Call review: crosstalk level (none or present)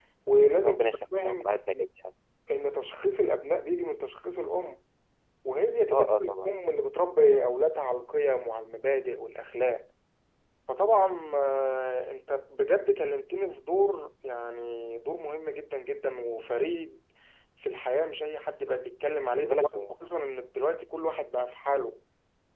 present